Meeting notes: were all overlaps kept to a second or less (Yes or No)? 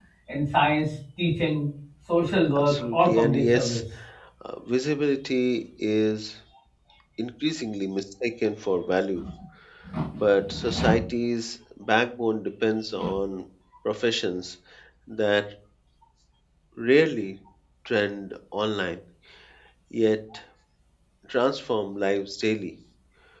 No